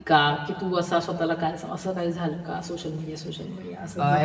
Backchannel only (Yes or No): No